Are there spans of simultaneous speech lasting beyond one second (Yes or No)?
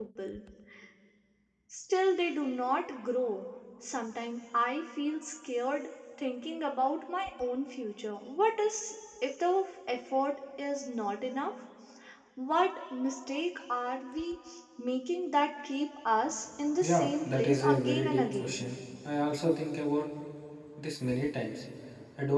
Yes